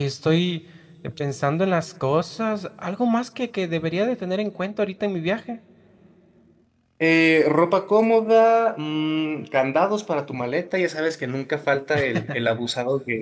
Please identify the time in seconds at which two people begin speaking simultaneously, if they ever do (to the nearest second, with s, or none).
none